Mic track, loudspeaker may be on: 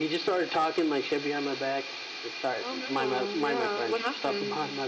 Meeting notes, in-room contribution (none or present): none